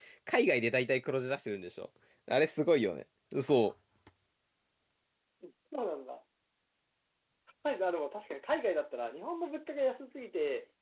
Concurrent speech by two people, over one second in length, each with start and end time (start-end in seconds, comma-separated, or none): none